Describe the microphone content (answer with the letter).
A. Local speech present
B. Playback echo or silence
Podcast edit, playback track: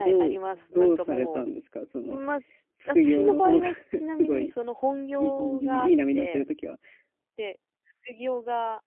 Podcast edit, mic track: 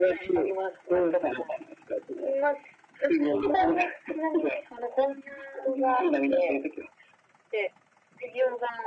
B